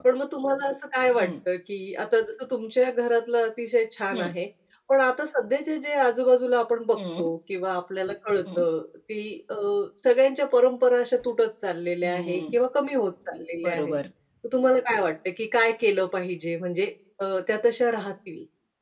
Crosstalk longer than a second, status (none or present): none